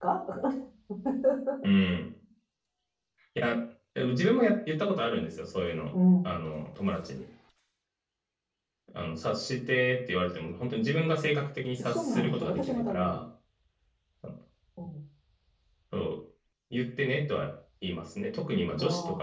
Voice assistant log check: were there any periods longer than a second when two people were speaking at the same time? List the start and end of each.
11.8-13.2

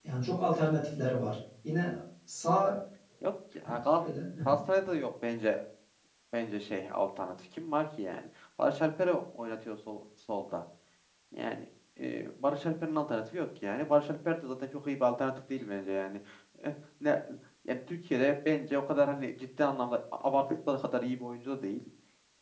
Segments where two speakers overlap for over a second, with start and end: none

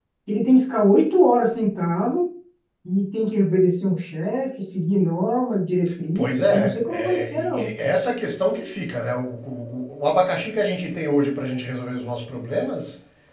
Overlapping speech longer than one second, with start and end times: 6.2-7.7

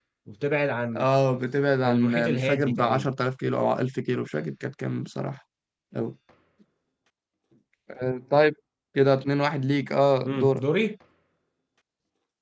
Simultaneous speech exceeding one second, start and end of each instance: 1.8-3.1

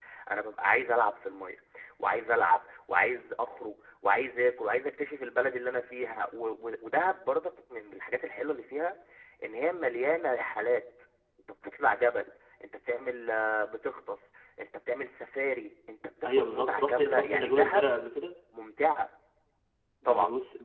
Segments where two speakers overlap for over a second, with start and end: 16.2-17.9

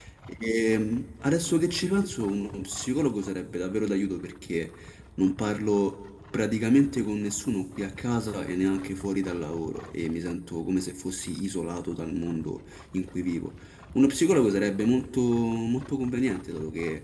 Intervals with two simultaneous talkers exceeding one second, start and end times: none

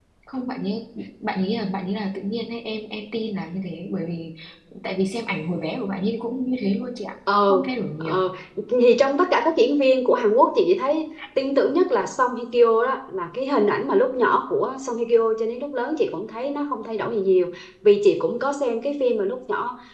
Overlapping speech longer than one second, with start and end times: none

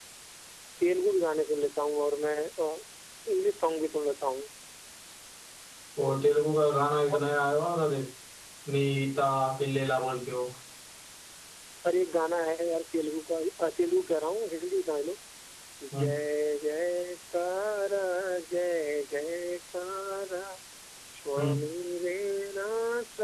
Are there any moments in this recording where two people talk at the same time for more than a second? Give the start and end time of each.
none

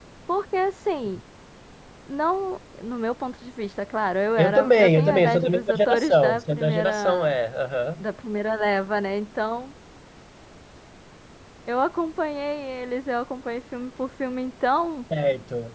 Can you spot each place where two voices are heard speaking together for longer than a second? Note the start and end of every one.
4.4-7.3

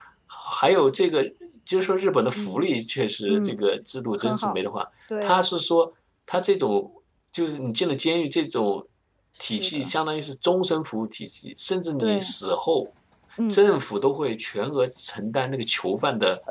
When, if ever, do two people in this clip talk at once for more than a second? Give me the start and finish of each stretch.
none

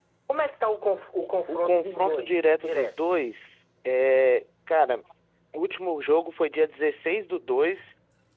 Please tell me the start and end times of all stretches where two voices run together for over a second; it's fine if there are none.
1.5-2.9

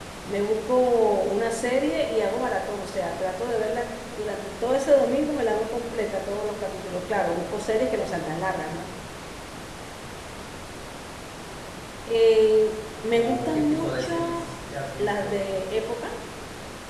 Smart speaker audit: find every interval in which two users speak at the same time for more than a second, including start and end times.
13.1-14.4

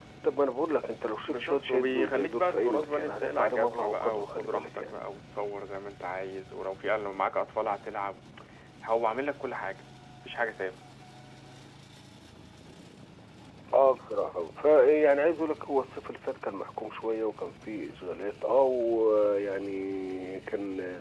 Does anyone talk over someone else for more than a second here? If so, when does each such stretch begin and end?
1.3-4.9

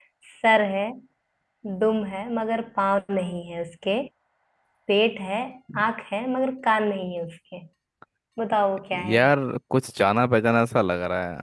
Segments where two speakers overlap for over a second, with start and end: none

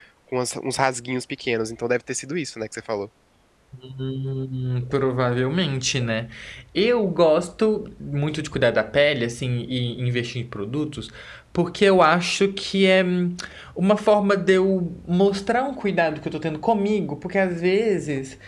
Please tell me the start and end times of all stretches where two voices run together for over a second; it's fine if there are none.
none

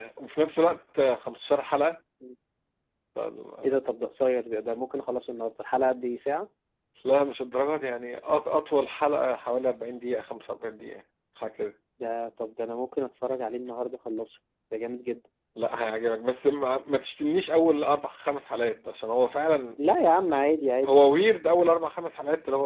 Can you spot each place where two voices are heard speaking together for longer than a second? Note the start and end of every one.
none

